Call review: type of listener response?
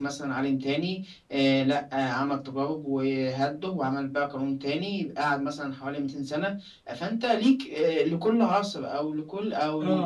listening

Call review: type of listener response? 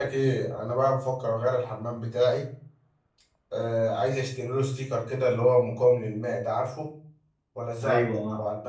listening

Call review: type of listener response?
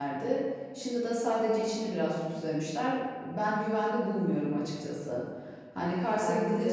listening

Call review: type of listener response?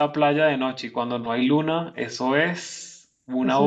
taking over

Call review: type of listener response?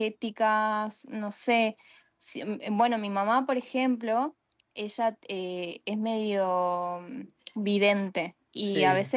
listening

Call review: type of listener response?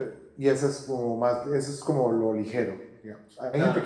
listening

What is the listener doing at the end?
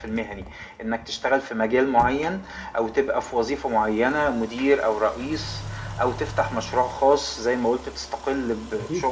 listening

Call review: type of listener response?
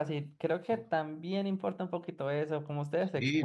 taking over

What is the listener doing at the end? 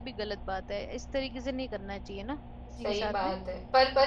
taking over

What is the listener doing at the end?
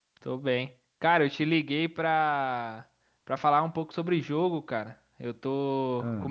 listening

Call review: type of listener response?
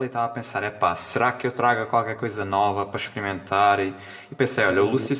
listening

